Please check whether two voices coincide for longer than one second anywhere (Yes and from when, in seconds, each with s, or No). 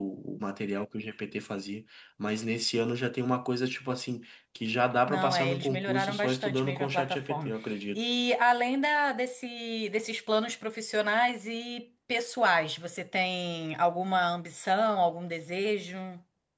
Yes, from 5.1 s